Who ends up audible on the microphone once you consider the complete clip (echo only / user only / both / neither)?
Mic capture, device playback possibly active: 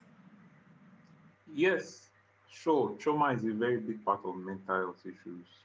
user only